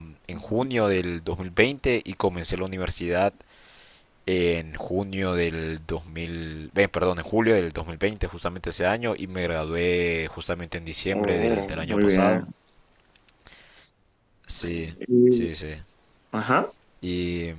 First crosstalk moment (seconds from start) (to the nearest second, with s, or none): 11 s